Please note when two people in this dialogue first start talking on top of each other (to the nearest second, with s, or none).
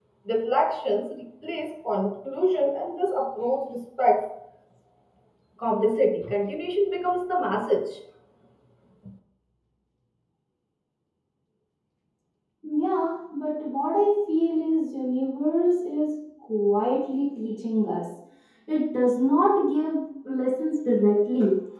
none